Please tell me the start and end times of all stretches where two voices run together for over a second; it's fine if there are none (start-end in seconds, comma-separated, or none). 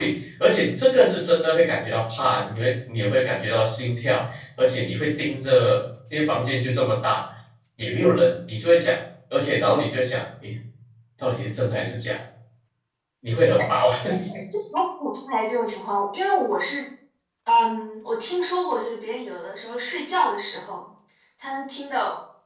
none